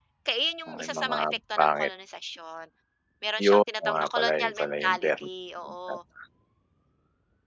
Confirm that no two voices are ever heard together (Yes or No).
No